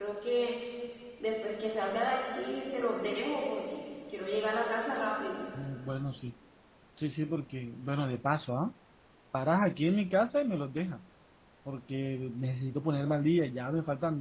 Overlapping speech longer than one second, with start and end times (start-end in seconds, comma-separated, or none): none